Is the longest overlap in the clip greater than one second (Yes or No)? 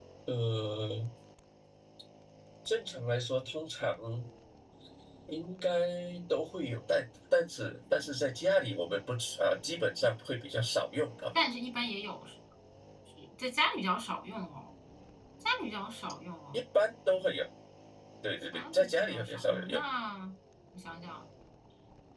Yes